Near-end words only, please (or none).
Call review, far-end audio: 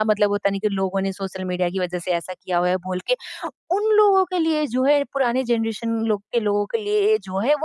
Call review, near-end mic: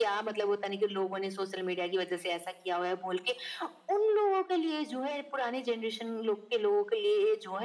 none